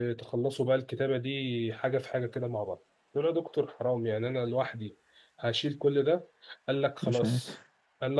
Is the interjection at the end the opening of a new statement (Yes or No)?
No